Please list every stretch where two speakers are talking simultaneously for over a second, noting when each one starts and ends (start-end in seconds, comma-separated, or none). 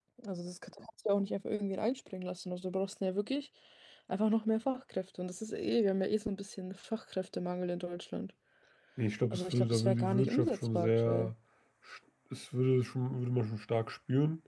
9.3-11.3